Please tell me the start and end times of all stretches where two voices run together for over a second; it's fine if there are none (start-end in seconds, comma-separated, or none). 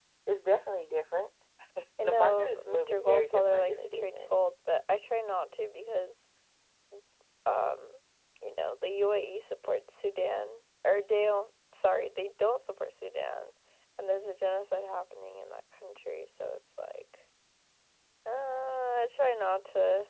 2.0-4.4